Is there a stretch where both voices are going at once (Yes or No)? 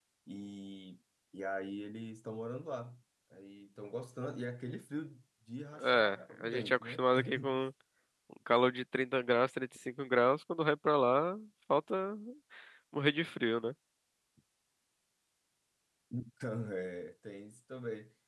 Yes